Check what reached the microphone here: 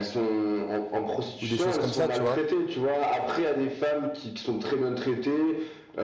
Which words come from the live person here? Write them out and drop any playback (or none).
ou des choses comme ça, tu vois.